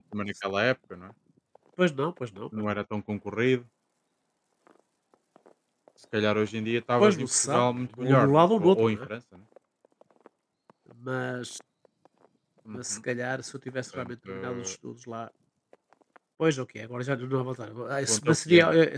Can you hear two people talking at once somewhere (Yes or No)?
Yes